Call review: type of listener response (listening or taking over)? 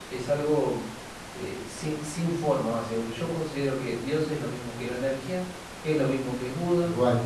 listening